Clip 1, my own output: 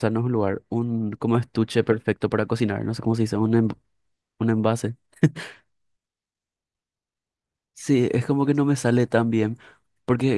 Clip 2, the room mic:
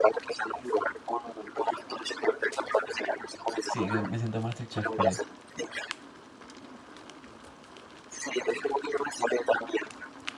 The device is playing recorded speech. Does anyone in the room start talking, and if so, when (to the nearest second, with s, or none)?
4 s